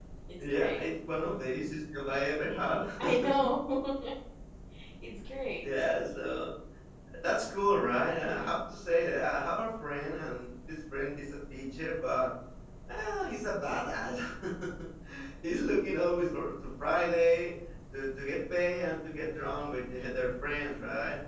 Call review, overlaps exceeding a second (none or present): none